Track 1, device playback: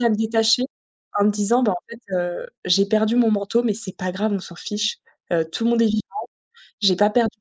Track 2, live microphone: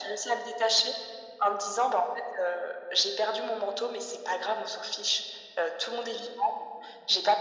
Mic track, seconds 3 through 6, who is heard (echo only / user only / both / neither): echo only